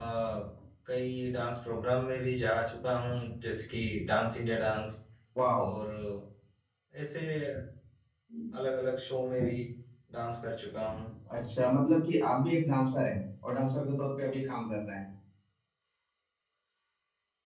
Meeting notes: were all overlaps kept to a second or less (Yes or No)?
Yes